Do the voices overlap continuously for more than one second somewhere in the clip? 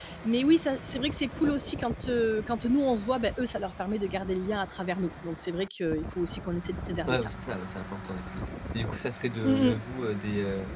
No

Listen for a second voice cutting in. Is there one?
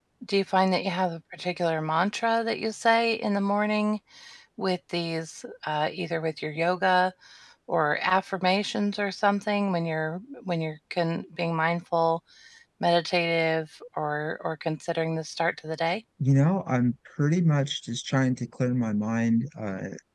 No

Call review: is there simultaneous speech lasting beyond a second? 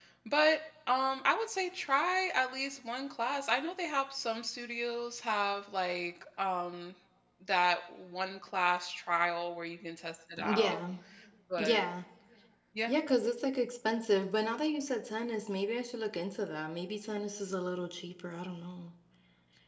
No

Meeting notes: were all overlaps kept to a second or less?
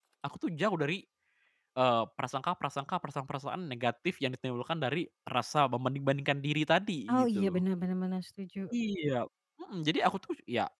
Yes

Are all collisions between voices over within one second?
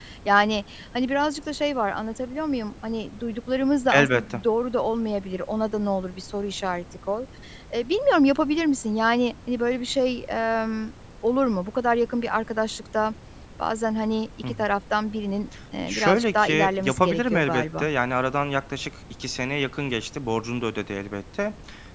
No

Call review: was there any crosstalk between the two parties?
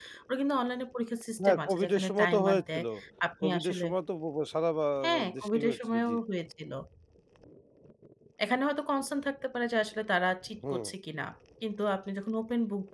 Yes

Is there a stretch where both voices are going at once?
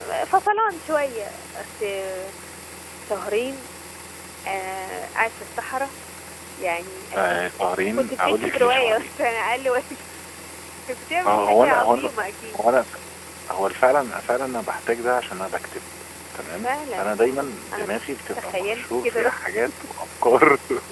Yes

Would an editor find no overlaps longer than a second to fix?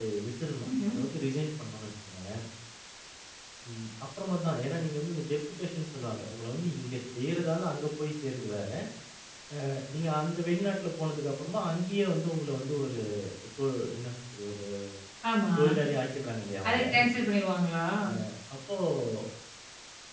Yes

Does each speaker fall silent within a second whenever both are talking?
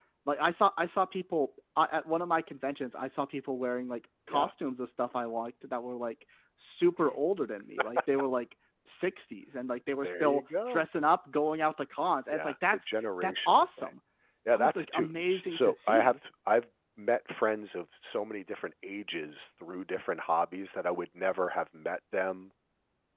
No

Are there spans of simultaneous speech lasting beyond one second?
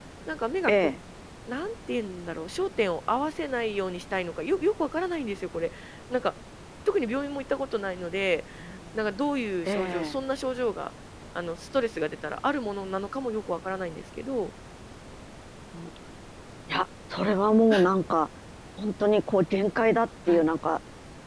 No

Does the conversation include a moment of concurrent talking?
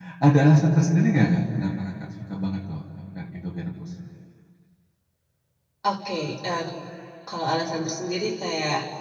No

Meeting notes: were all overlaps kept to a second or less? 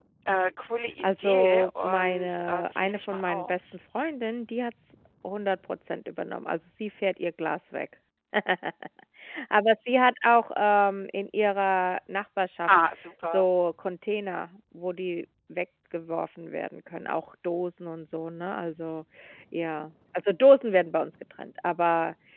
No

